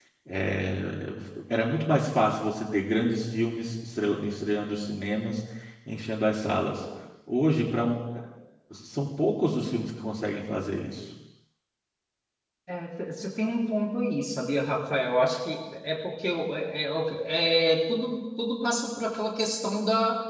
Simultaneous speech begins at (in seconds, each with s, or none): none